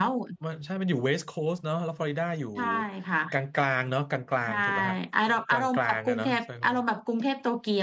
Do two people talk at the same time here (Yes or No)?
Yes